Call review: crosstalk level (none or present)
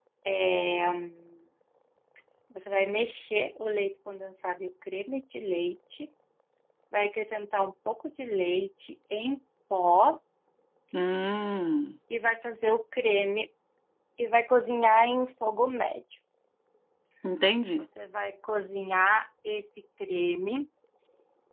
none